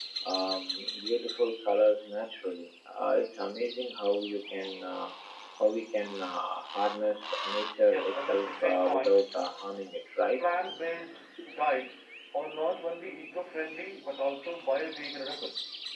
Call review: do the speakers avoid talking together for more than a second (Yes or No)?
No